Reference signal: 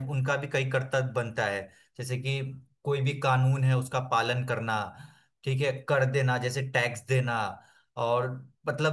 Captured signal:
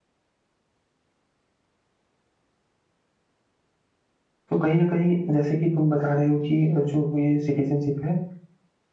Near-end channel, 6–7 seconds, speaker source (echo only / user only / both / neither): user only